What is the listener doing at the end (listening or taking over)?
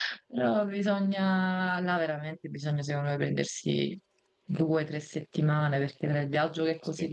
listening